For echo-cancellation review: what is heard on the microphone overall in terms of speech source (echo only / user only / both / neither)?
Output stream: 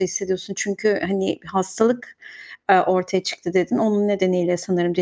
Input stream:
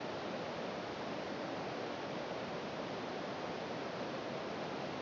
neither